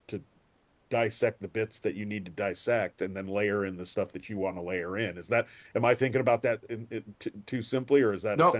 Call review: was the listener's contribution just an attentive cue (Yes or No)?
No